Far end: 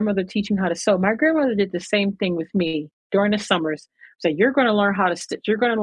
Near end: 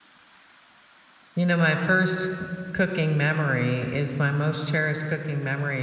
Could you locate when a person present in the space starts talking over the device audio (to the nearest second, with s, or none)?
1 s